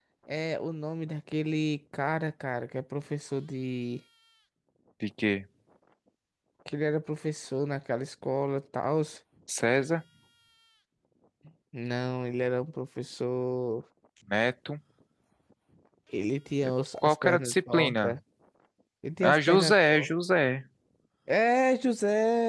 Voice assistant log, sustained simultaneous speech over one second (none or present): present